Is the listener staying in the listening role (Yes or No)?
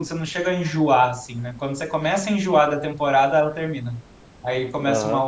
No